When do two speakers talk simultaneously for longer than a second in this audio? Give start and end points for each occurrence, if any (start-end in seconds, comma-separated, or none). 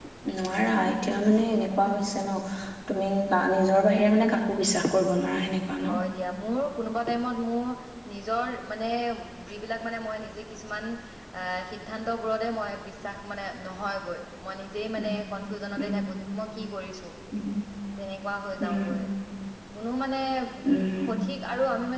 none